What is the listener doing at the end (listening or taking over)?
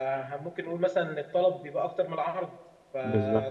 listening